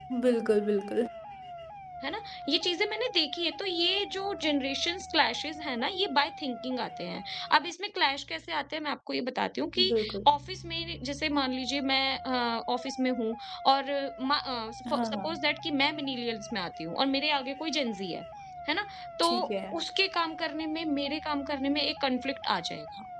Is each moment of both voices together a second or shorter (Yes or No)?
Yes